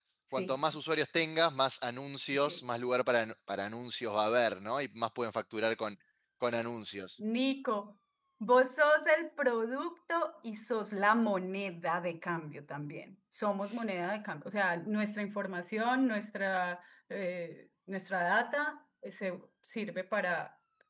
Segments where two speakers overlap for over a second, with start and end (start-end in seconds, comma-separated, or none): none